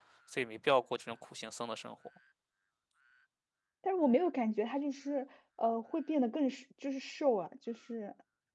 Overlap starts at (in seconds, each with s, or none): none